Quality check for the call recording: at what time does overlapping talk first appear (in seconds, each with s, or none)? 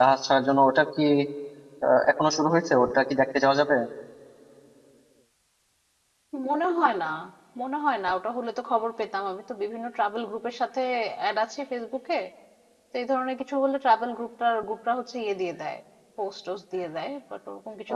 none